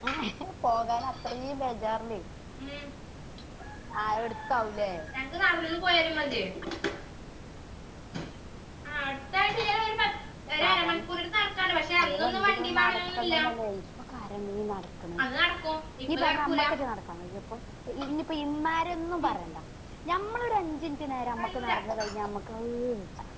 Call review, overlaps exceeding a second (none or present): present